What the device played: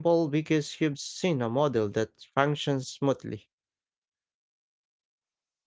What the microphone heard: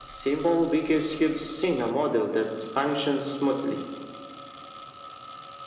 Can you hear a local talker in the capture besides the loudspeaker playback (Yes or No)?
No